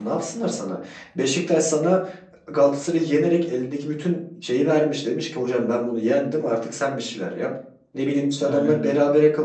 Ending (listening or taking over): listening